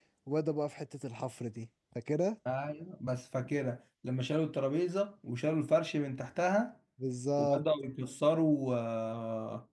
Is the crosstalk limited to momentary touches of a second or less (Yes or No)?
Yes